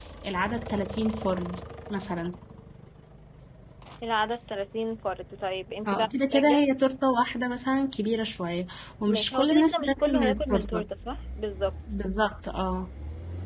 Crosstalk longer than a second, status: present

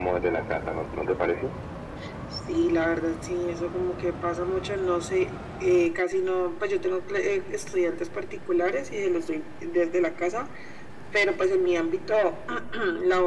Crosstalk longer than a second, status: none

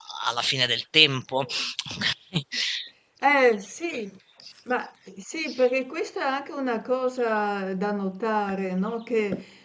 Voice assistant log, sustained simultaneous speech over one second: none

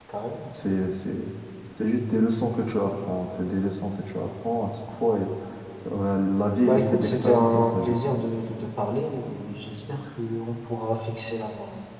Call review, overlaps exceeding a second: present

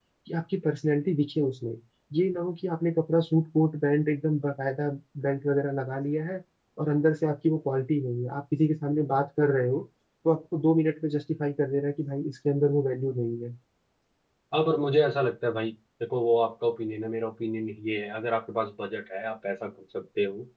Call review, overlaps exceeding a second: none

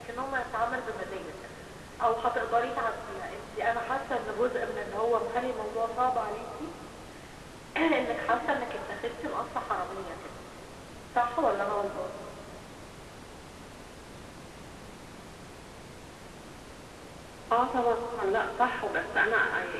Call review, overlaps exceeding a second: none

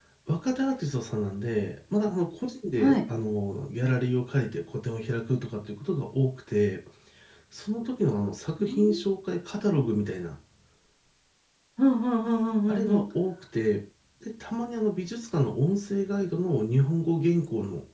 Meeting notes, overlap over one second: none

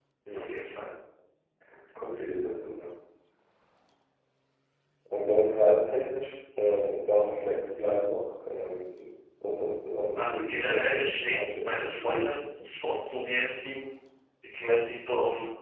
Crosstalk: present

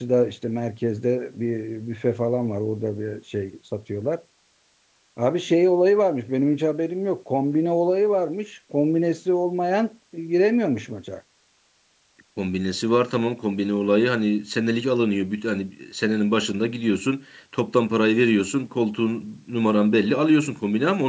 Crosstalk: none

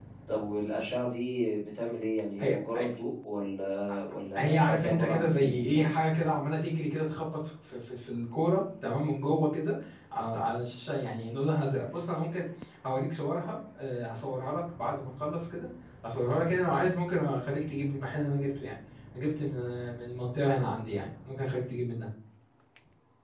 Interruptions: present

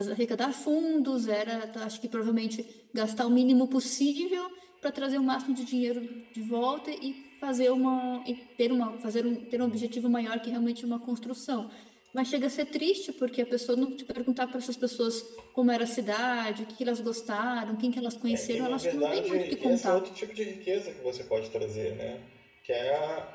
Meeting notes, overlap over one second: present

